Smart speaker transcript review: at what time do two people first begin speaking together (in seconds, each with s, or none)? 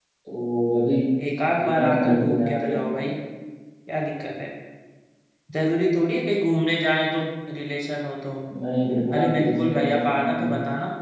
1.6 s